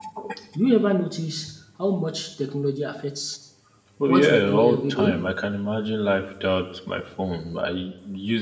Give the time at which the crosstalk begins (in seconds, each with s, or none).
4.1 s